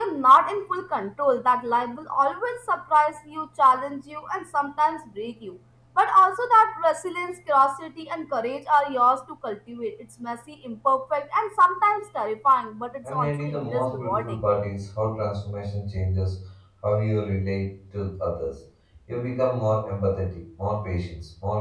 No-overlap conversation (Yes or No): No